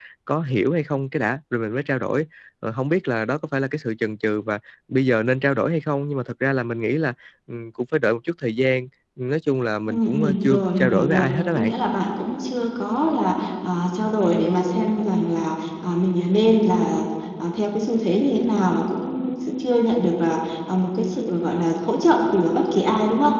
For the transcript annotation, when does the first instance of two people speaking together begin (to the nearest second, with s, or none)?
10 s